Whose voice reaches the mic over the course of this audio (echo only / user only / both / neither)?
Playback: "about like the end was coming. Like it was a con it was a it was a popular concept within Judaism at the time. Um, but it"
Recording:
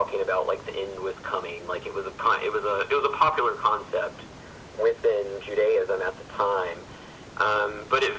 echo only